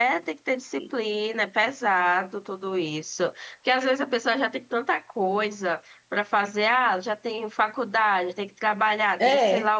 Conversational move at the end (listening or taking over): listening